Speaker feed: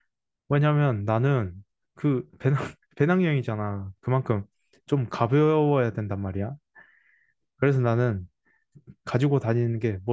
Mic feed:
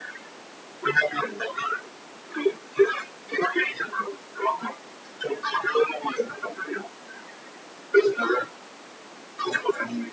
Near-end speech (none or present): none